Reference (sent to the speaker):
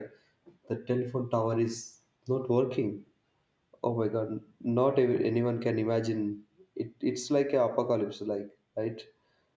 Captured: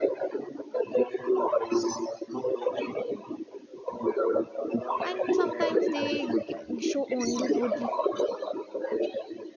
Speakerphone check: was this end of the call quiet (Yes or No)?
No